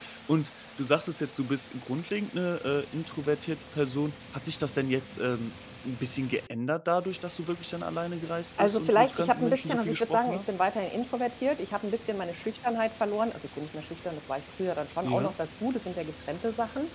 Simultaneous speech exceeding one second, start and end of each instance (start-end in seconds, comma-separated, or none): 8.6-10.5